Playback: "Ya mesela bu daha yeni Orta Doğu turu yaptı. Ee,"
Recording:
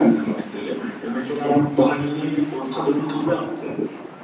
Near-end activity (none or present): none